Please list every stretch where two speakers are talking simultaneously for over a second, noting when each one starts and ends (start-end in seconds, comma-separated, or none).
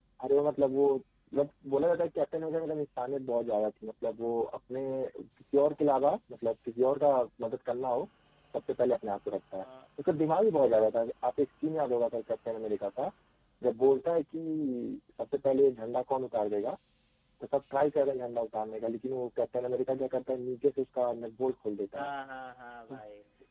none